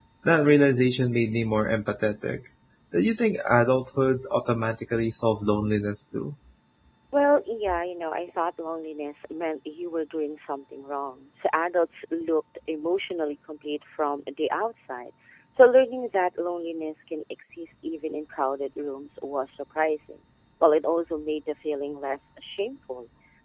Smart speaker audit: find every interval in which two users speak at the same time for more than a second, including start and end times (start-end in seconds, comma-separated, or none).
none